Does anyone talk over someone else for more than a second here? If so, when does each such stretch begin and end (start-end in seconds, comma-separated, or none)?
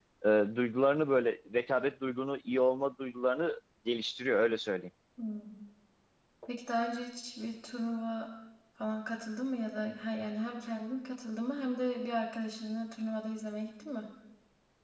none